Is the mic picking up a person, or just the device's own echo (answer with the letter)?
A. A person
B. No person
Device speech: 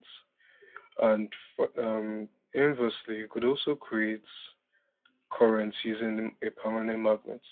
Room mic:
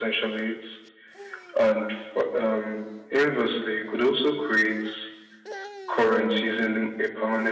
B